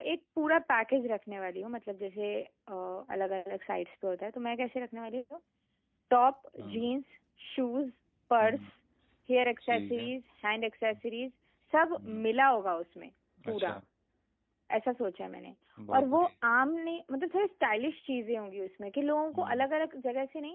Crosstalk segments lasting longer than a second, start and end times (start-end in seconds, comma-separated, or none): none